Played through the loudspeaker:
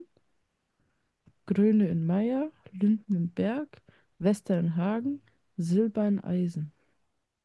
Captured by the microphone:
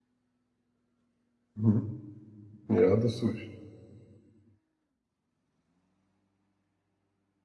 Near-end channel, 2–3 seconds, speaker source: user only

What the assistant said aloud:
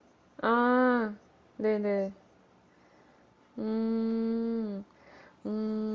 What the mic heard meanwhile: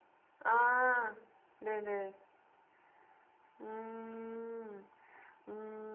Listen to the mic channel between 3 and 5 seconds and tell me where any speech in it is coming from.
echo only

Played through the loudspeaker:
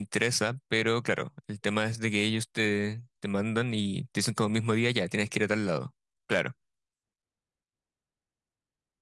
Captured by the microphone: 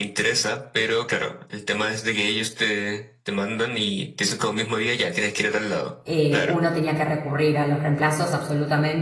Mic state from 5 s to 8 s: both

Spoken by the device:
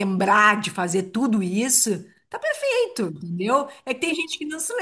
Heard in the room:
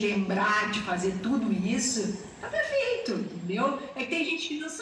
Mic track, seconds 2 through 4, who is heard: echo only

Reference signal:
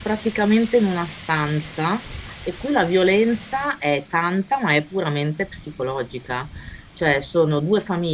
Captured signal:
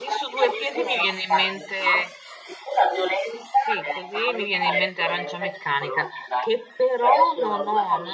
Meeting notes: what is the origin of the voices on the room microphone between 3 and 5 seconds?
both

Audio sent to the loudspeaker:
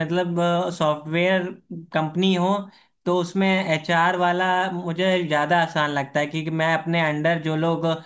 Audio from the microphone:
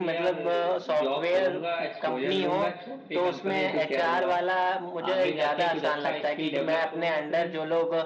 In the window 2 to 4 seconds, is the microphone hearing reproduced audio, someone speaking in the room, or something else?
both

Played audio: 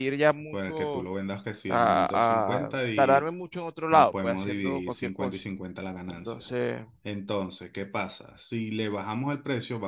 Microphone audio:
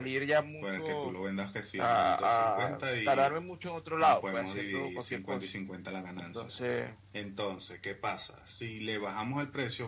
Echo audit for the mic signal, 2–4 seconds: echo only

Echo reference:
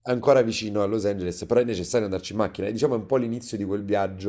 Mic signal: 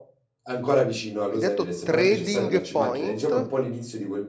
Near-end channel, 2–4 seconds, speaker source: both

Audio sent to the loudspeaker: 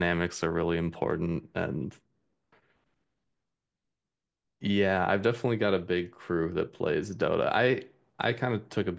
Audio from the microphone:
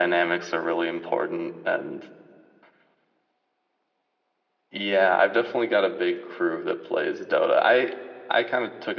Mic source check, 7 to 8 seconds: echo only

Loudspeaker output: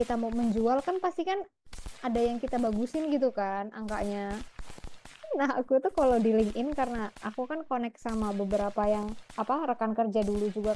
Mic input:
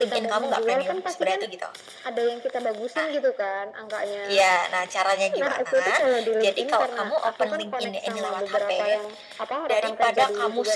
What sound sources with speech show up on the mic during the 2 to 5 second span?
both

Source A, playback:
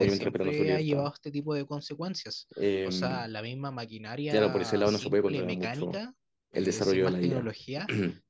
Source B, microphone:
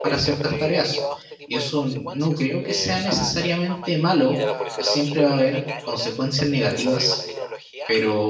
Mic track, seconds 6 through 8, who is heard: both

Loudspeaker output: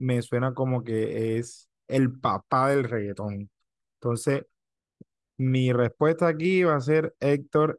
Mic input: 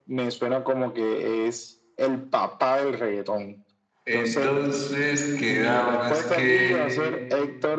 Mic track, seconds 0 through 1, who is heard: echo only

